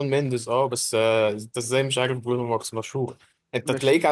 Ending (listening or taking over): listening